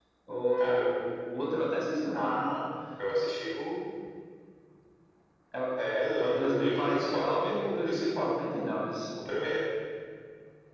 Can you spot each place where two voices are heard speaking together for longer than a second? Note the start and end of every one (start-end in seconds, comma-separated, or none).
6.2-8.3